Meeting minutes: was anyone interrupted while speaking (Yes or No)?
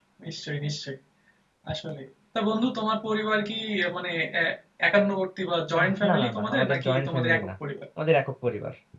Yes